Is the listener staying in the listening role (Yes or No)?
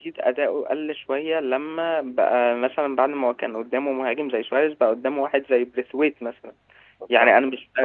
Yes